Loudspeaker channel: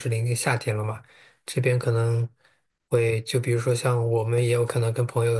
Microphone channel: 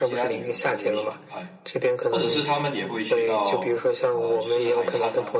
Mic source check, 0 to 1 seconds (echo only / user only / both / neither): both